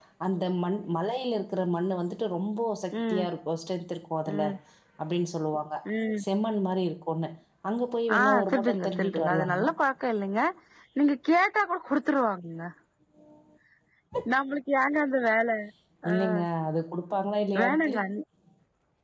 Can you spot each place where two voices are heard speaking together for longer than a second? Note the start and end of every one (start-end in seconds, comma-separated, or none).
8.2-9.7